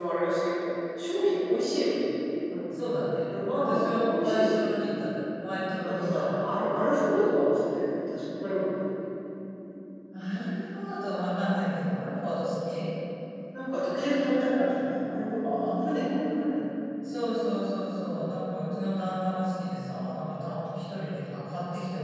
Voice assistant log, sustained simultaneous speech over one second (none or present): present